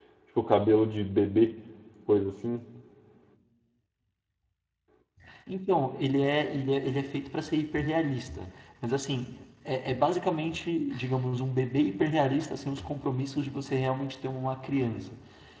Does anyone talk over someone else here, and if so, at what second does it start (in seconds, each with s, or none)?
none